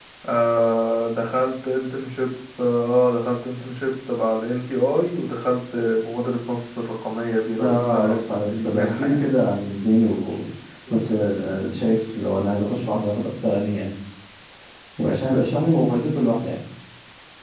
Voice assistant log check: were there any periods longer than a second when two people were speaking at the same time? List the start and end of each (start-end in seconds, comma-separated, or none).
7.6-9.2